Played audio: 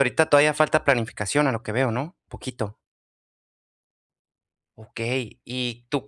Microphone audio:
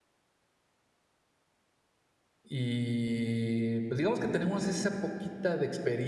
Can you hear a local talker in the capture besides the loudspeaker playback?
Yes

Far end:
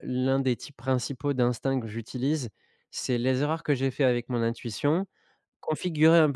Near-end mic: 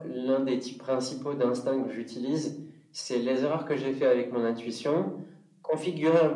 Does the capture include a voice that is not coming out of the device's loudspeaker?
No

